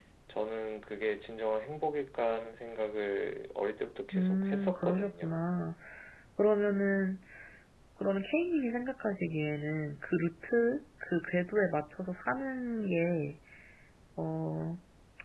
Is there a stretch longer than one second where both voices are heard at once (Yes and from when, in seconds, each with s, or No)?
Yes, from 4.1 s